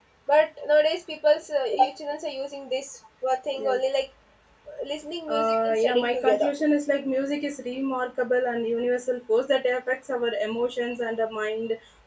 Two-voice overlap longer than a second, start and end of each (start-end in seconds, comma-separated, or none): 5.3-6.5